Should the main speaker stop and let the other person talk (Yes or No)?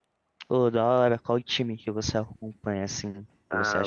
Yes